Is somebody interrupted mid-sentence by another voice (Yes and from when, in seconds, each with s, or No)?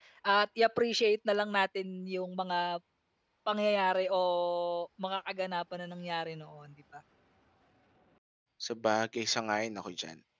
No